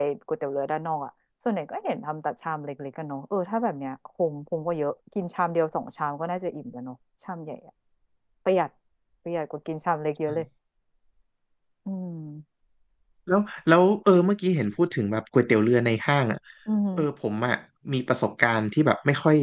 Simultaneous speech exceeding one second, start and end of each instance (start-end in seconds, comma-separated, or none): none